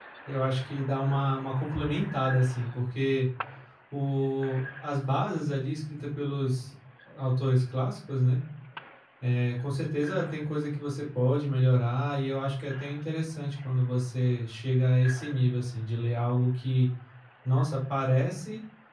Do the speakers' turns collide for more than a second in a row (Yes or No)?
No